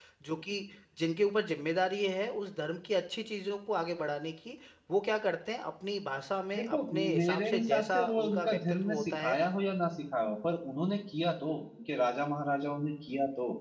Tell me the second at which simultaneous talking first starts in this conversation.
7 s

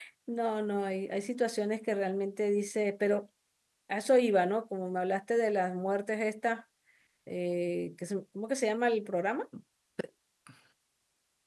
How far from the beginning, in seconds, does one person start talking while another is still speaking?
none

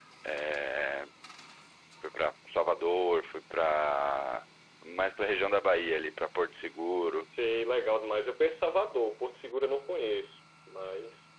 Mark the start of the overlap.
none

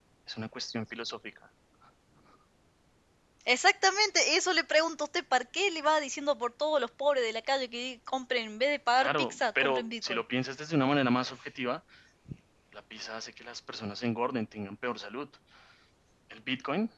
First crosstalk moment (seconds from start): 9 s

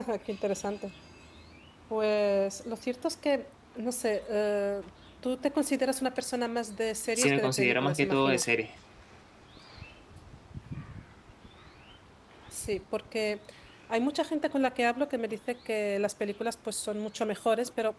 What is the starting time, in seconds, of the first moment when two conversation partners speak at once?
7 s

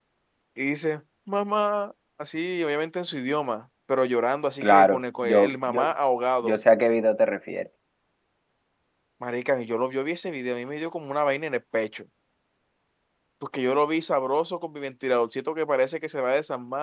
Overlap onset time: 5 s

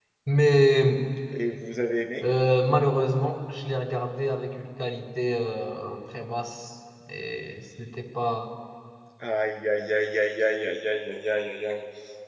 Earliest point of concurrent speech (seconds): none

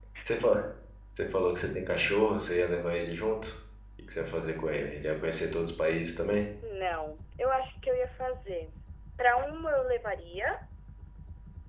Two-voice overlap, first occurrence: none

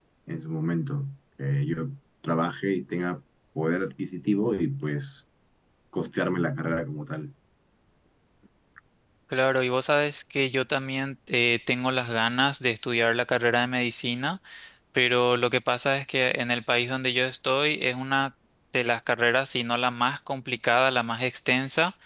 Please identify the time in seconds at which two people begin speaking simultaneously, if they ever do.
none

